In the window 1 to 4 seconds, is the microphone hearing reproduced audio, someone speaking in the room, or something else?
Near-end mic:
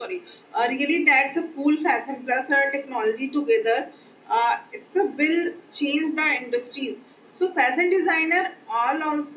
echo only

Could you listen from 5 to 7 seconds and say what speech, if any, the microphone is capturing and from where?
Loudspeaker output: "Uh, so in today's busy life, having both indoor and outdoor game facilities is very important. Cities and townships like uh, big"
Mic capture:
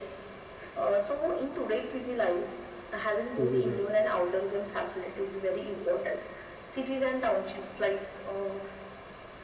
echo only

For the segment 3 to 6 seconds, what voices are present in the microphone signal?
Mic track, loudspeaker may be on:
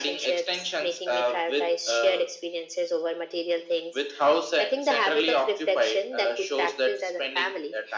echo only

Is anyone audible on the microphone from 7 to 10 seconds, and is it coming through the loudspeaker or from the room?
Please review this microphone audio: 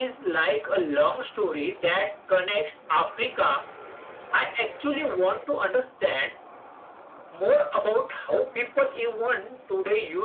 echo only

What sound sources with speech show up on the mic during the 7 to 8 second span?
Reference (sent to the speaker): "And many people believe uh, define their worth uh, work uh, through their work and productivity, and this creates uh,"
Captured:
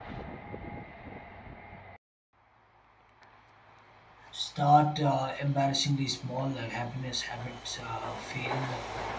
user only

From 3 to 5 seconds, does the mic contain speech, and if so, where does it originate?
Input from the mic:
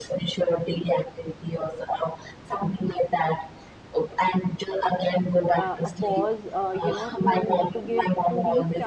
echo only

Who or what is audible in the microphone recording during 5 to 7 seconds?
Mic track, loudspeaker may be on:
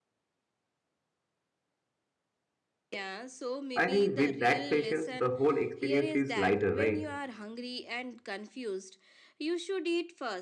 both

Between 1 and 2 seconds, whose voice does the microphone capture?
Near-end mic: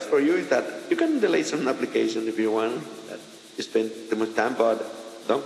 echo only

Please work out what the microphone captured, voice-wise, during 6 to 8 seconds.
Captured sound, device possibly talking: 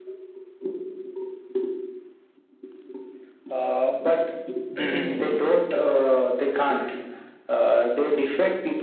echo only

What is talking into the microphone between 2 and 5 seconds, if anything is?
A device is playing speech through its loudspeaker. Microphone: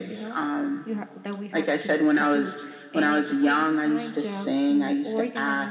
both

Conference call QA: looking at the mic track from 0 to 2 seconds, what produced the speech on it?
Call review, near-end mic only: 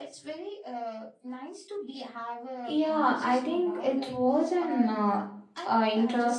echo only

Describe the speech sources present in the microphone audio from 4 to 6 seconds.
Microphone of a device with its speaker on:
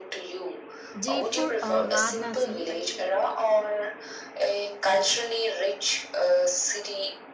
echo only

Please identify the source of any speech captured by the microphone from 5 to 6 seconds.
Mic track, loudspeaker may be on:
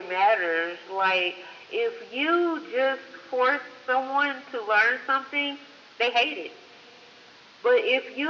echo only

